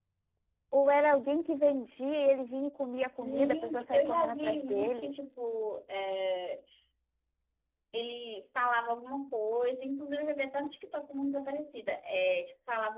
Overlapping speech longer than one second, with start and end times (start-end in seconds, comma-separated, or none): 3.2-5.2